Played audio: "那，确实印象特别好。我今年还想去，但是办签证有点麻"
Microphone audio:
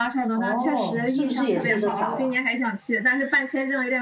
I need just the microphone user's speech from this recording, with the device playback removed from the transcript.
哦，是不是也是一个岛啊？

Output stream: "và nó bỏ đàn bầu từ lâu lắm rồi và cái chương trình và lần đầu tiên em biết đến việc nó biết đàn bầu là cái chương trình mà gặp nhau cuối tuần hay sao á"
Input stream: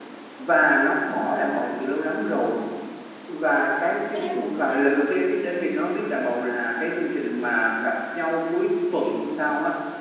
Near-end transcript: cái đấy là một bước tiến mới ừ,

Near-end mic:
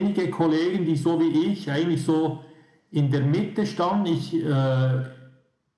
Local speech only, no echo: none

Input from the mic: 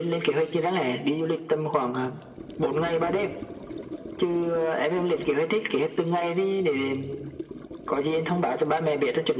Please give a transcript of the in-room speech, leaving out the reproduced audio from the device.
none

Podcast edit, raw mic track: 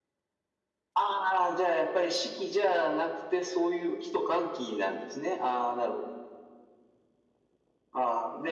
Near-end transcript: none

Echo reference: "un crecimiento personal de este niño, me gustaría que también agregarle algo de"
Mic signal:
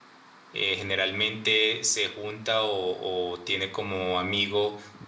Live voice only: eh, generalmente se junta o o tiene como amigo

